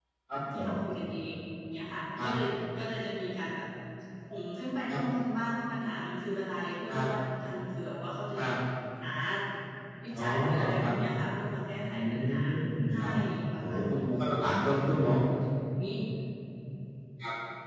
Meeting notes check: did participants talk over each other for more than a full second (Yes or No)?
Yes